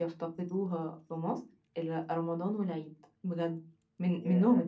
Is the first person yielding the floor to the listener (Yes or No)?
No